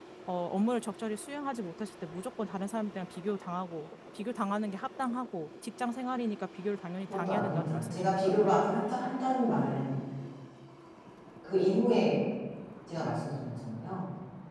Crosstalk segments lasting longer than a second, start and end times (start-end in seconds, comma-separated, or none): 7.0-8.3